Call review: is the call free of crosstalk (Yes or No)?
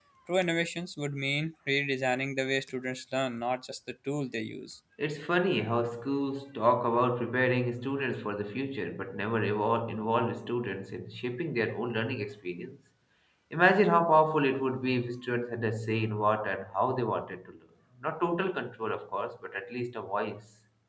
Yes